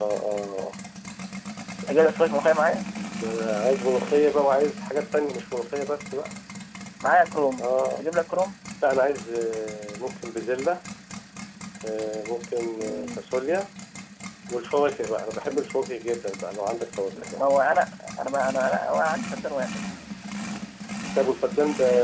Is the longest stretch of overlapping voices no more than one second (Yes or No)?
Yes